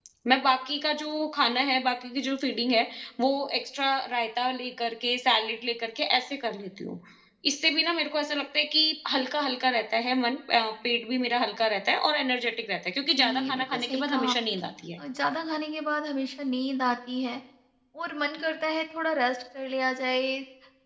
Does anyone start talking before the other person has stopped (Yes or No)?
Yes